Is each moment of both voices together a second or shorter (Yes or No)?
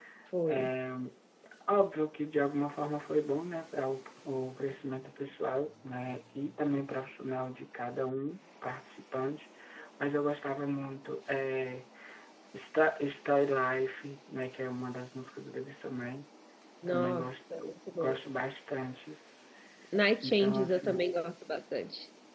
No